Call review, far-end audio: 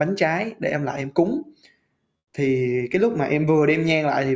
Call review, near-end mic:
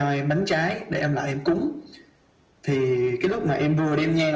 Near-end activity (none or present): none